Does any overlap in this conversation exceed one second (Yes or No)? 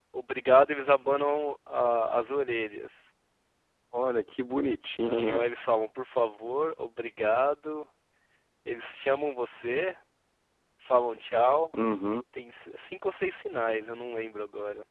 No